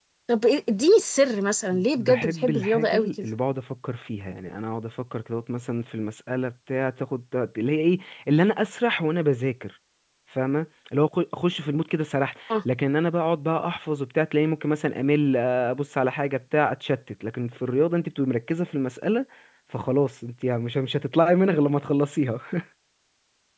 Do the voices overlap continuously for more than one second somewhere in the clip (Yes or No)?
Yes